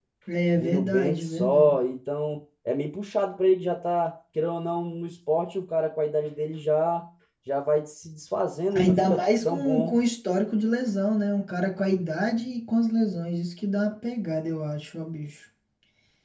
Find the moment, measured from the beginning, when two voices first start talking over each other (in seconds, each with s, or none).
0.6 s